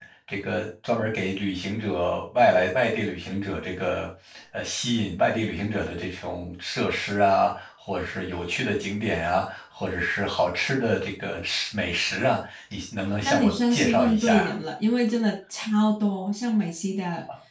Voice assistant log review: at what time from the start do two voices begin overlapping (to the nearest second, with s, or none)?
13 s